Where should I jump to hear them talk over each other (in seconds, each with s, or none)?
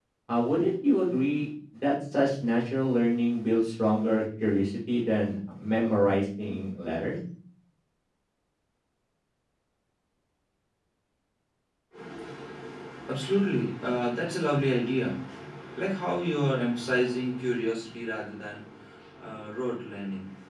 none